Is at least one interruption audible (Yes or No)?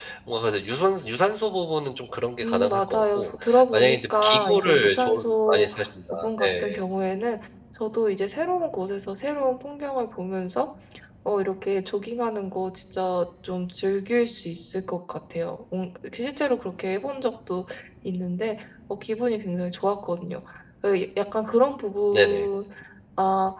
Yes